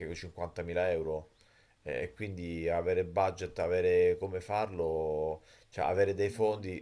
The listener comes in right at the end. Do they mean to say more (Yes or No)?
No